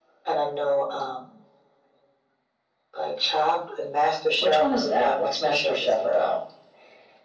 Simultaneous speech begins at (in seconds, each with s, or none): 4.4 s